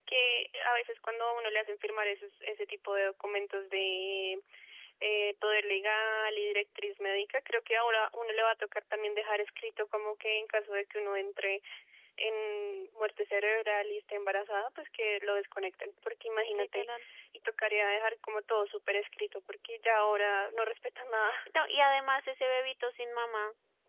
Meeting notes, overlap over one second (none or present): none